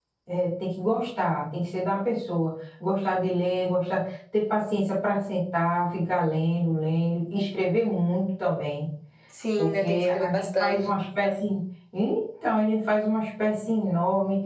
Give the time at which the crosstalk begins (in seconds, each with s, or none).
9.6 s